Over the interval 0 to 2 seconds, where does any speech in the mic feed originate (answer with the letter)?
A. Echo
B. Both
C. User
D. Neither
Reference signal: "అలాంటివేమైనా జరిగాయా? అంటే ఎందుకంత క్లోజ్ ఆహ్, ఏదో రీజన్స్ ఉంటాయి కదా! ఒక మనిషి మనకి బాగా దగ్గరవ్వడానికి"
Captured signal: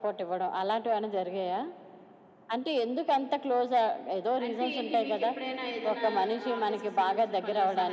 A